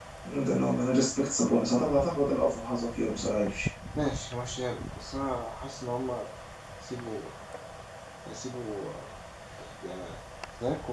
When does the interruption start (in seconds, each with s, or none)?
none